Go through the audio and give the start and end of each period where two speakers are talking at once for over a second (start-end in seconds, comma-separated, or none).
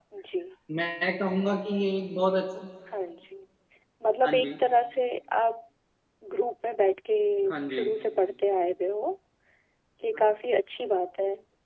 none